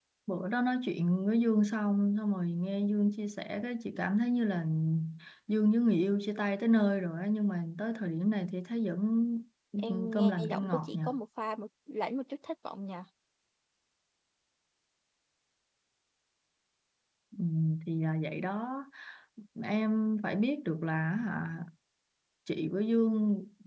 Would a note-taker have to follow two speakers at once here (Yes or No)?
Yes